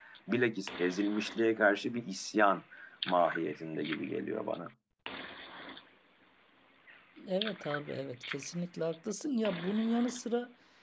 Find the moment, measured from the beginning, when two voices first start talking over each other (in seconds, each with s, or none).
none